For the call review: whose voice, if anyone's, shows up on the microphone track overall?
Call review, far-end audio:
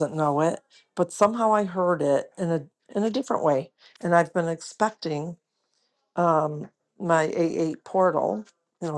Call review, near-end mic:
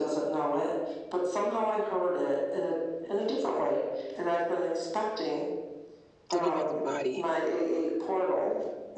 both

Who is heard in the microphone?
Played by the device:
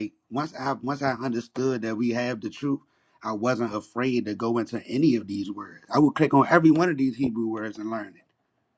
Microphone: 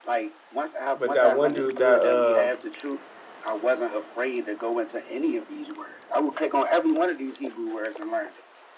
both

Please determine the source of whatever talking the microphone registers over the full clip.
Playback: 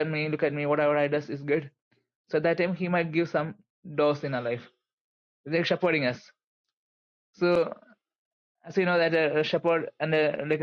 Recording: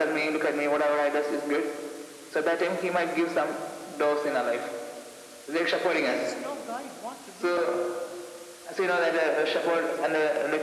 both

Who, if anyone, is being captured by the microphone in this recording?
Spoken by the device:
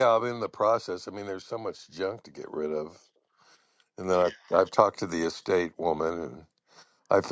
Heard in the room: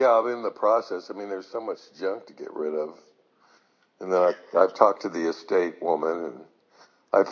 echo only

